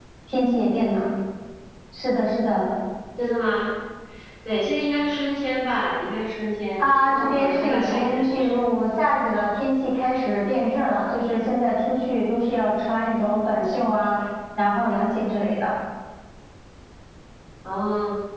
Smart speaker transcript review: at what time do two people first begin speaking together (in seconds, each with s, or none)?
6.8 s